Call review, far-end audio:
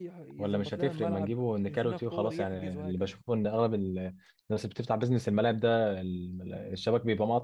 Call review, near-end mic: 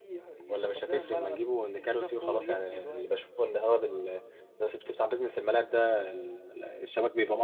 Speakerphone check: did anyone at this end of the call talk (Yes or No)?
No